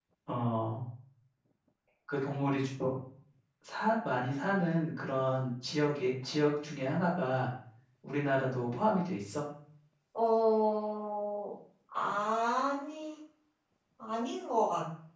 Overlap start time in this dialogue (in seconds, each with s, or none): none